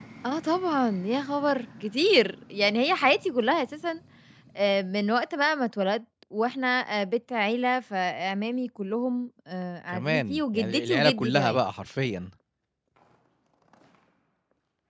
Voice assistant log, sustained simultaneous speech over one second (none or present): present